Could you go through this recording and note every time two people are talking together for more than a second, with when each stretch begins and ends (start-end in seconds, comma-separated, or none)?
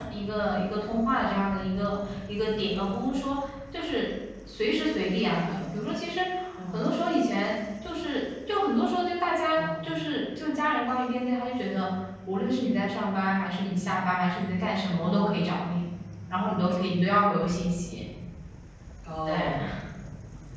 none